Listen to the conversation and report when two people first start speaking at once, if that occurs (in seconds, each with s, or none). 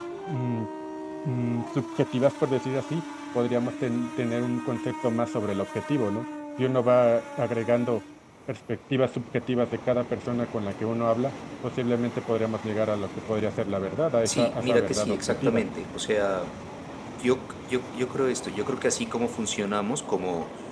14.2 s